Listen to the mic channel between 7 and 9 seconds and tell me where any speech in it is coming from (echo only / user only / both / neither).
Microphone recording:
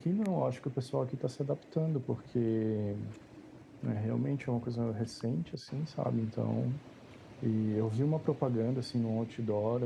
echo only